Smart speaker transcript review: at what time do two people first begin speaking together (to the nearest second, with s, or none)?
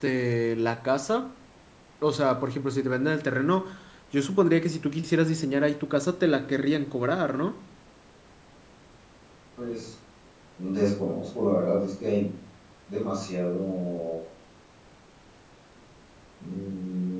none